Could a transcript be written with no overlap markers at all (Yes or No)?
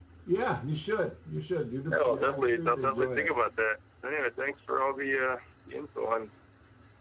No